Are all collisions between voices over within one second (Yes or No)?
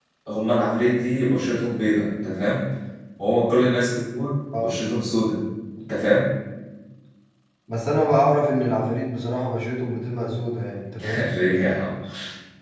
Yes